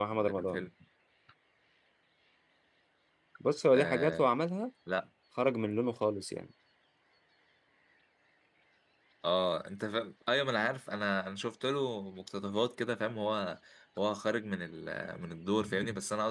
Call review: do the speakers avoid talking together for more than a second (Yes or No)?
Yes